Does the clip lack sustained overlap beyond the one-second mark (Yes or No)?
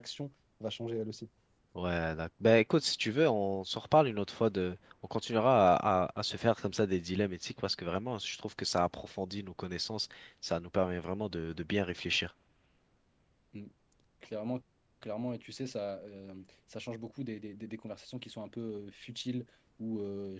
Yes